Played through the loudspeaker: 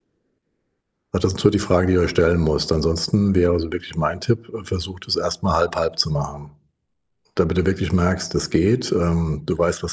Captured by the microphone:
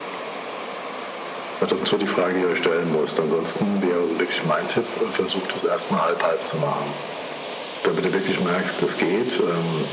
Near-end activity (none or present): none